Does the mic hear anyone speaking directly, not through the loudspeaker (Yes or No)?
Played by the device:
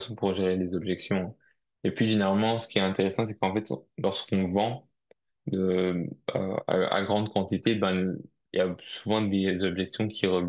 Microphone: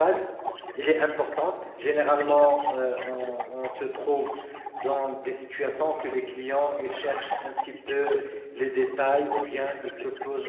Yes